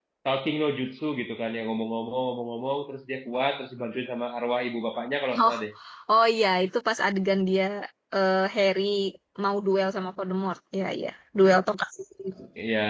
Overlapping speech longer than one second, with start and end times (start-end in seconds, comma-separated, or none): none